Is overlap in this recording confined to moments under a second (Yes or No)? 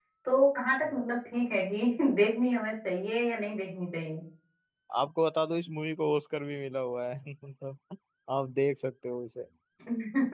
Yes